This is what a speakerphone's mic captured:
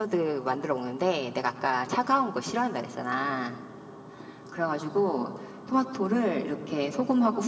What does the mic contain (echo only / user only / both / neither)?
echo only